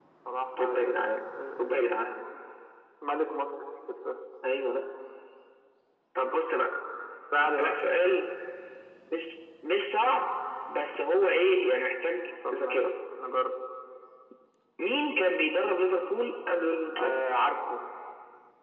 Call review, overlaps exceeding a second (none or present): none